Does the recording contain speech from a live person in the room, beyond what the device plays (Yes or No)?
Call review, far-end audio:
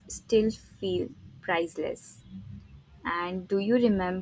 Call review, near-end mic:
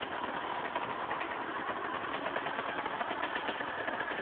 No